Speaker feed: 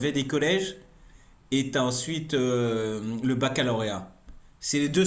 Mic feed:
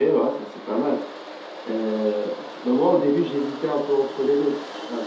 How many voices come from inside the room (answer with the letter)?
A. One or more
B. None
A